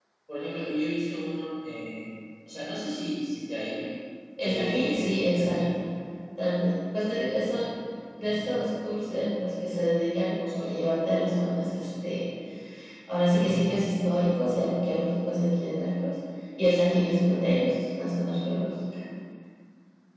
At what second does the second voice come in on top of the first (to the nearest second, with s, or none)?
4 s